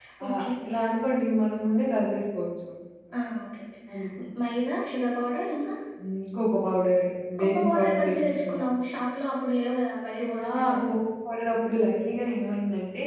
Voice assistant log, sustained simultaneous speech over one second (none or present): present